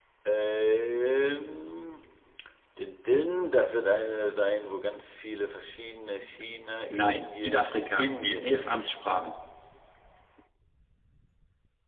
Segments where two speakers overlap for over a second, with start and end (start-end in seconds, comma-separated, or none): 6.9-8.9